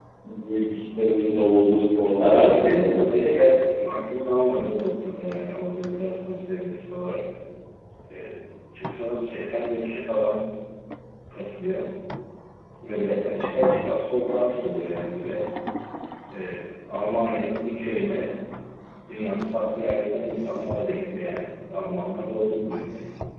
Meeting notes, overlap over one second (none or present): present